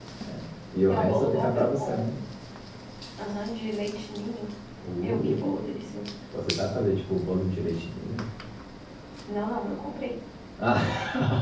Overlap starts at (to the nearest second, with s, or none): 1 s